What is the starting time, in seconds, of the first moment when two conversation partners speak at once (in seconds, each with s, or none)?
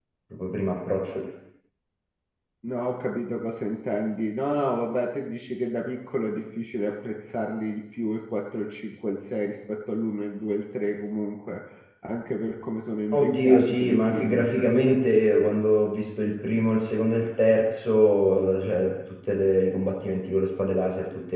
13.1 s